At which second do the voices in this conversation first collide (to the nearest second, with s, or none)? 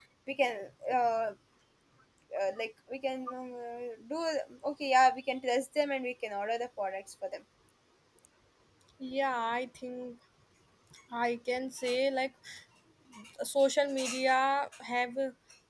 none